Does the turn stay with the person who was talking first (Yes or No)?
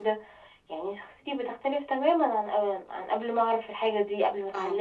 No